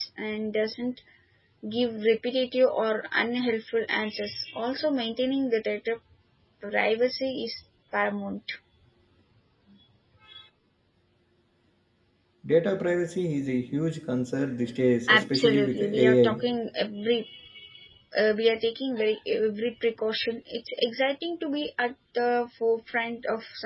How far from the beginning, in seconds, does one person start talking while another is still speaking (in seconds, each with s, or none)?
15.1 s